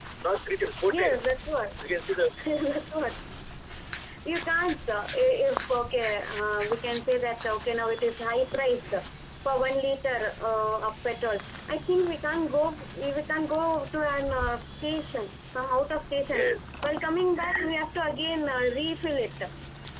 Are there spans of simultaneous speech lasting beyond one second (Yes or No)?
No